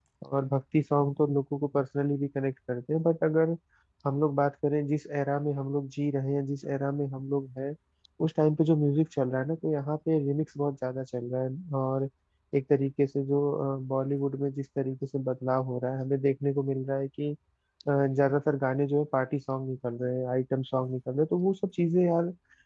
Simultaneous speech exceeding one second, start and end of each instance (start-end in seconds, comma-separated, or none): none